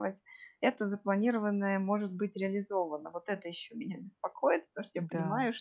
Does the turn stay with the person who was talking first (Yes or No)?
Yes